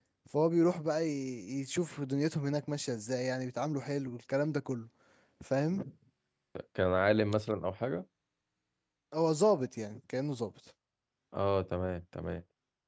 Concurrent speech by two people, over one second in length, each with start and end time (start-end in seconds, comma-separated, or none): none